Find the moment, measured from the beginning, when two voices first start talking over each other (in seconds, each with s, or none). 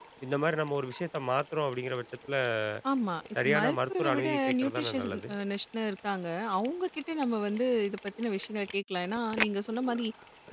3.4 s